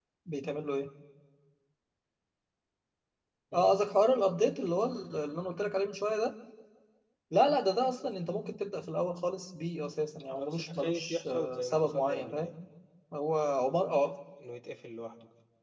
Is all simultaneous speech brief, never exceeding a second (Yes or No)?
No